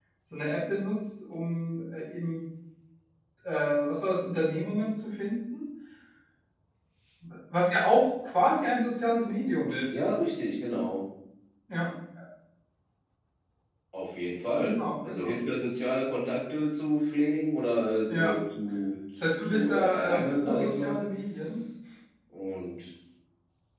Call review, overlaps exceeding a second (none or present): present